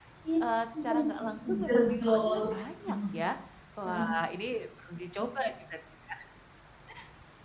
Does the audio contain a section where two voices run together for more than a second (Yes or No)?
Yes